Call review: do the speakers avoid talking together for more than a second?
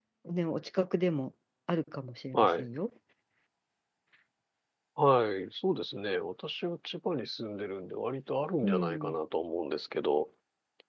Yes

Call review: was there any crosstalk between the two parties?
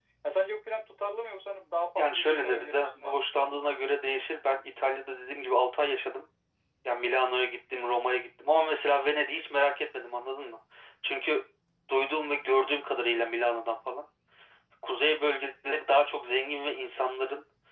Yes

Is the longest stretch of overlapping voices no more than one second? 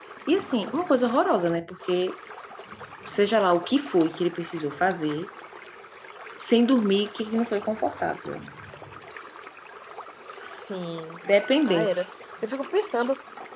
Yes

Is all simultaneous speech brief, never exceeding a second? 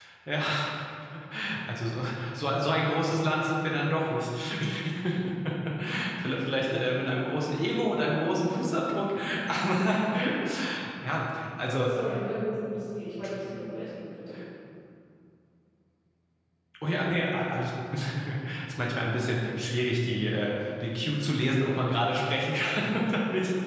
Yes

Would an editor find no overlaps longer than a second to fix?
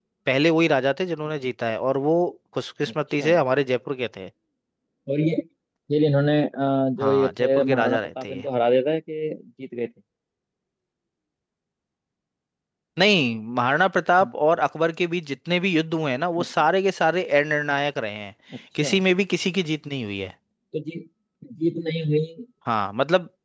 No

